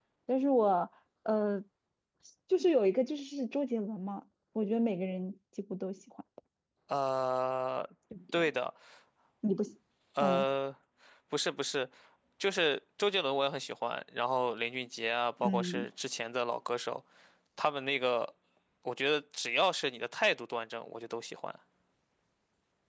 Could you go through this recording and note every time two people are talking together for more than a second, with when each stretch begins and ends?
none

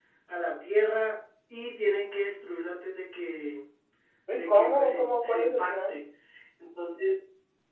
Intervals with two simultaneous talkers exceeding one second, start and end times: 4.3-6.0

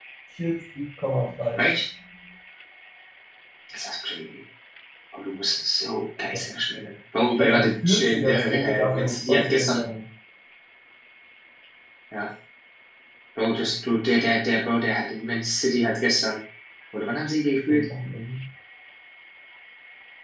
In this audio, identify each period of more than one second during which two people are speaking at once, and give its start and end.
7.4-9.8

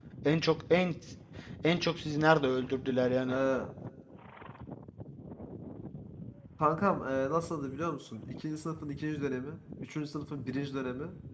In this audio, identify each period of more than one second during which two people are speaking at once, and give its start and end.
none

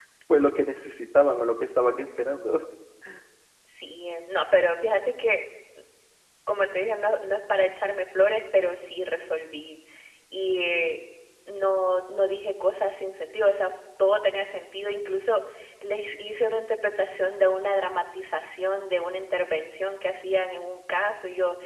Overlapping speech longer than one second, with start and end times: none

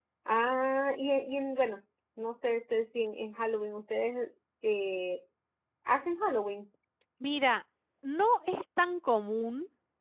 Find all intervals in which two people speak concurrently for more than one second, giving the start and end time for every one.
none

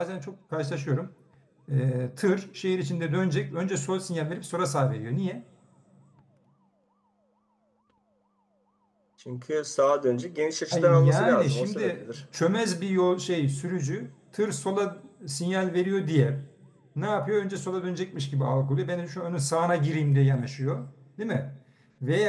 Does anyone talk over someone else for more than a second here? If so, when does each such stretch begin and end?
10.7-12.2

